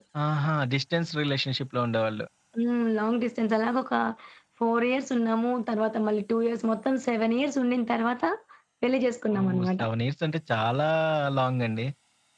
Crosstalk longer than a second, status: none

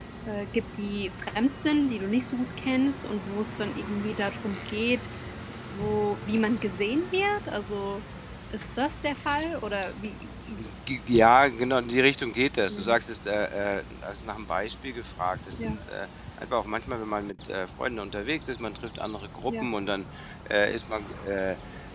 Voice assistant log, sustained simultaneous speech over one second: none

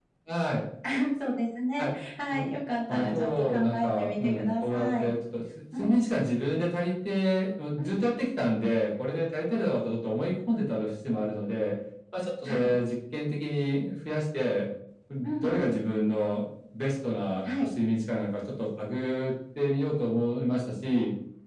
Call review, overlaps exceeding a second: present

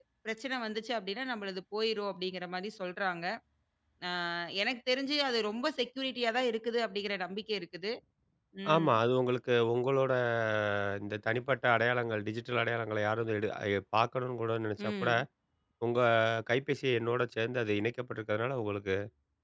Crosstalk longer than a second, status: none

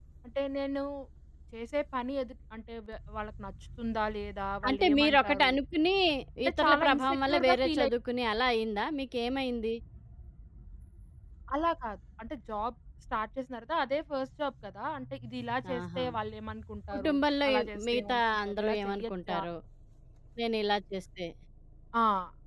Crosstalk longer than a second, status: present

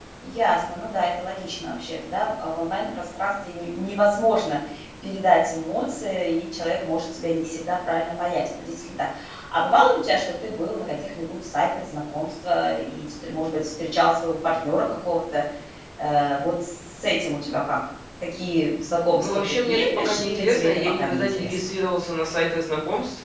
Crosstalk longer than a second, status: present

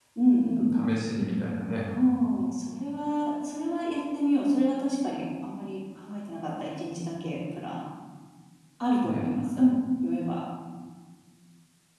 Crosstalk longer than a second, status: none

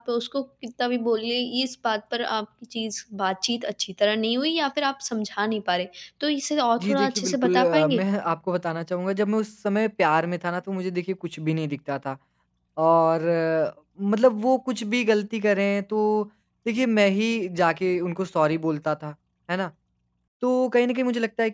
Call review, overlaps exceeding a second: present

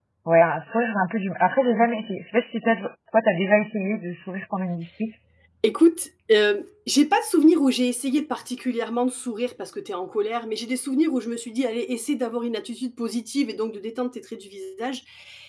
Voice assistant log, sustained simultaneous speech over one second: none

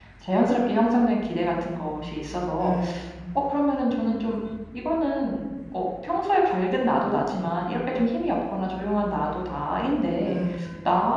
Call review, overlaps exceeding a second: none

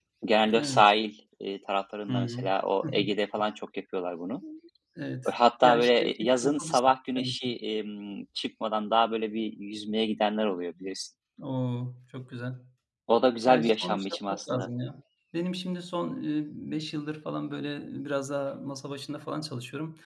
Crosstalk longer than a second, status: present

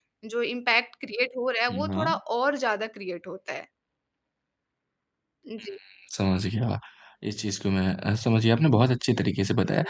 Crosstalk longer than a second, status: none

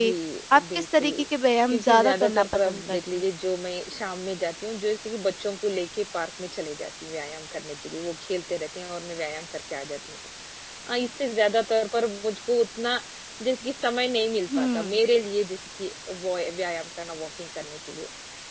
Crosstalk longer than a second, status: present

